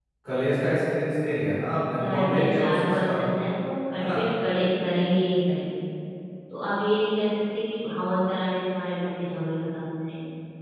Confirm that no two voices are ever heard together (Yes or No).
No